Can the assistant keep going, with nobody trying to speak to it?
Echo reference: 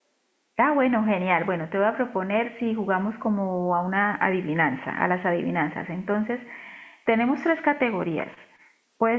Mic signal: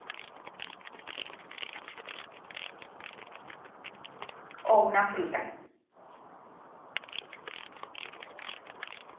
No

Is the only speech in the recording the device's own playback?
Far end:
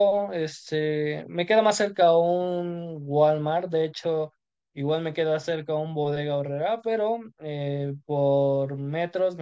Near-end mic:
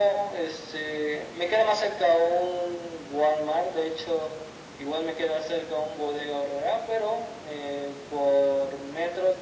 Yes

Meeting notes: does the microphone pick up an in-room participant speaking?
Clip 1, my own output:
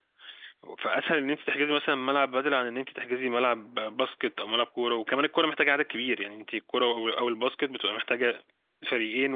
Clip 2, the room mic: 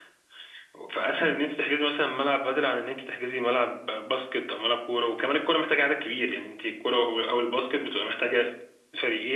No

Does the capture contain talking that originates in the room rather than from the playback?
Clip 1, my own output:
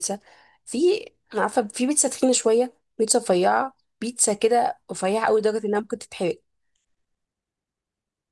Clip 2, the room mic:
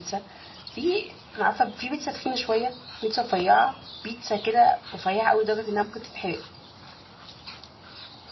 No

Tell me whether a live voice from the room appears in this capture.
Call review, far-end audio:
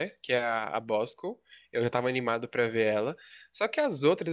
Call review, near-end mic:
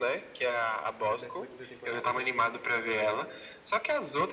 Yes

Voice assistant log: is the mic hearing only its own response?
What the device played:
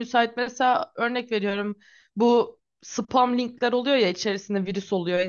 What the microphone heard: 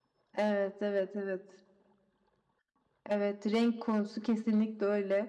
No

